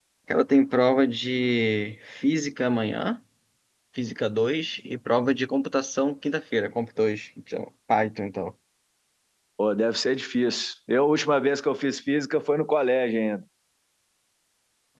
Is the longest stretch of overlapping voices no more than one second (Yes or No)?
Yes